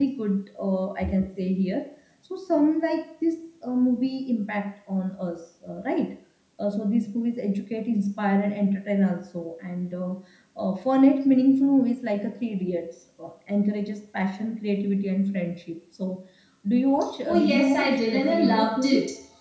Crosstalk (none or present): present